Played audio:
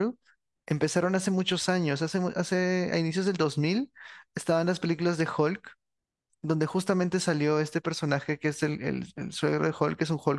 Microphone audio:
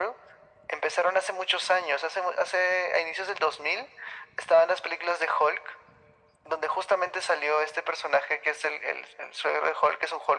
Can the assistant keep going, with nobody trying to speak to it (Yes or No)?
Yes